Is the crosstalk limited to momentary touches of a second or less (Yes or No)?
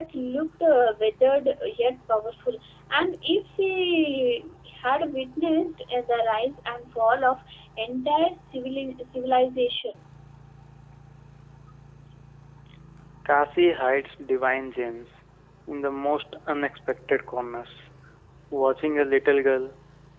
Yes